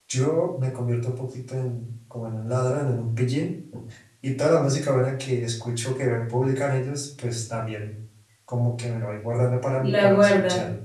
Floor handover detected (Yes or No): No